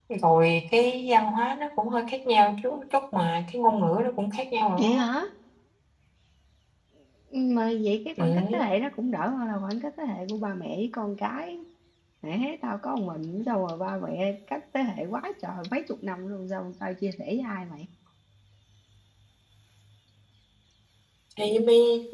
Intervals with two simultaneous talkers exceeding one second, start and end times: none

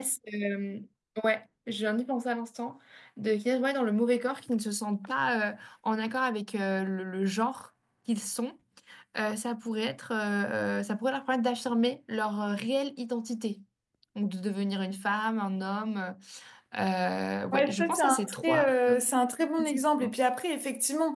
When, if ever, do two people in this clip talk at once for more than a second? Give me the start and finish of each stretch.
17.5-19.0

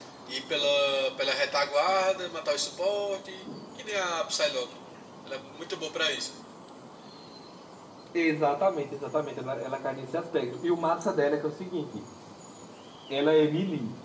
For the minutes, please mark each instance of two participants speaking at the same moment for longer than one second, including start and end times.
none

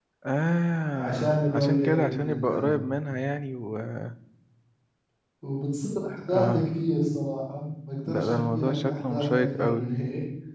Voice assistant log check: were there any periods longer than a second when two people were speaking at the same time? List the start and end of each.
0.9-2.8, 8.1-9.9

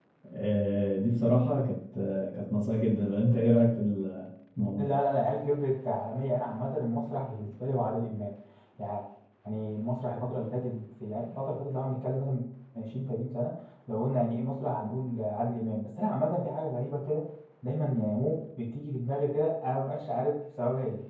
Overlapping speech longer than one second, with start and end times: none

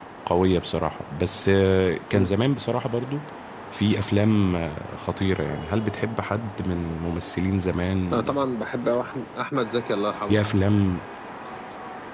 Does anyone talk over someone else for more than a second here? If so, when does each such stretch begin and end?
none

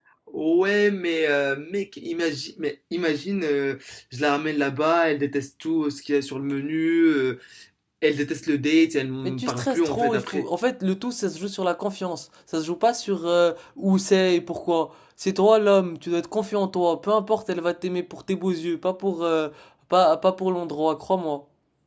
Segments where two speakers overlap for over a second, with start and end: 9.2-10.5

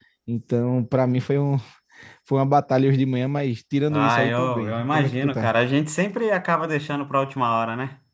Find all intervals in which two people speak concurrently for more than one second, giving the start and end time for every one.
3.9-5.5

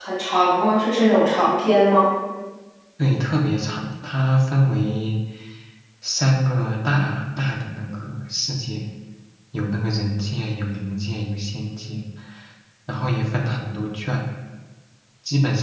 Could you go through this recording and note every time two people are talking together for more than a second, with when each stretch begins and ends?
none

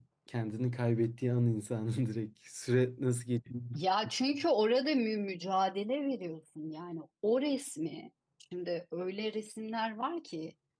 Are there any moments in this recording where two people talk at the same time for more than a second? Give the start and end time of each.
none

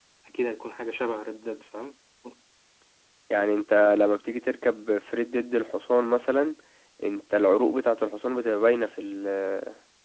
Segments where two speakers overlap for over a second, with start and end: none

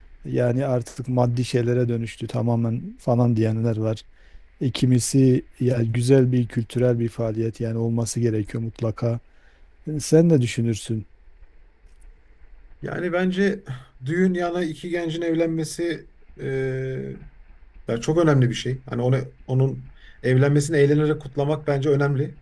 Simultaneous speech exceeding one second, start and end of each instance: none

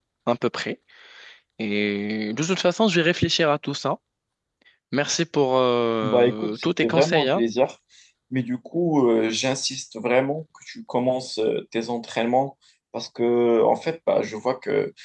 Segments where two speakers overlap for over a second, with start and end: 6.0-7.4

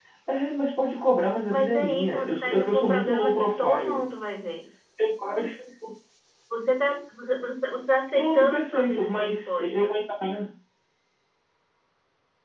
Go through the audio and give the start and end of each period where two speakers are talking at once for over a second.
1.5-4.1, 8.1-9.9

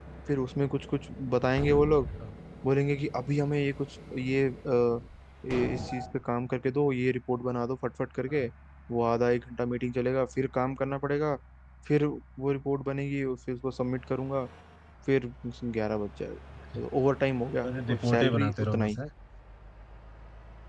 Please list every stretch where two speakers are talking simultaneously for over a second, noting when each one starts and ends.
17.6-19.0

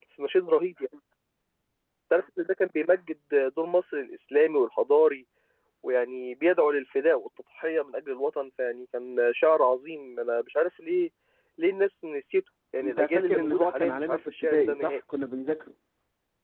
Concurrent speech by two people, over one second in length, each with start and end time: 12.8-15.0

